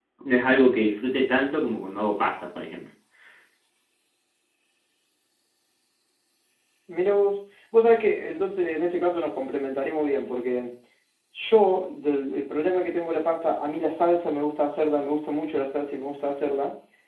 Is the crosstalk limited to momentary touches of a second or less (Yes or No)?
Yes